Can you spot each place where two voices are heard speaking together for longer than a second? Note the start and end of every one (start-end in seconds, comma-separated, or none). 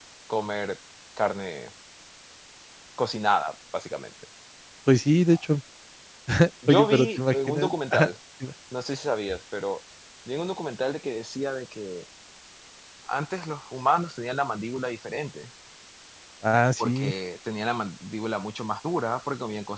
6.7-8.1